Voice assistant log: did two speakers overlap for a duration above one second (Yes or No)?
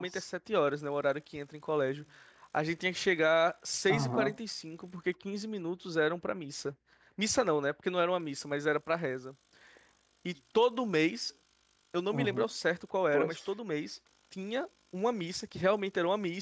No